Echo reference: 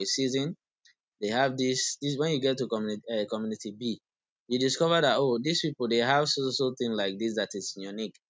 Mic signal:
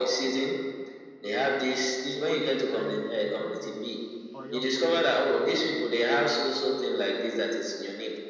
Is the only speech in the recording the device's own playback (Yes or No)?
No